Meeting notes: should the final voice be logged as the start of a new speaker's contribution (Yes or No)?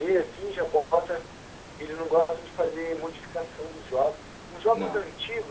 No